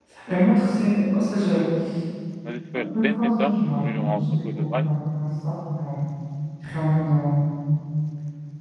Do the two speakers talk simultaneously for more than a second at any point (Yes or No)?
Yes